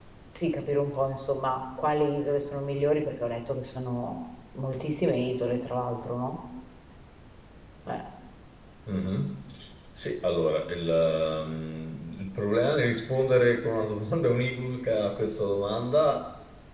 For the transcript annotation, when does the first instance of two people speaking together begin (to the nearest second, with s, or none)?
none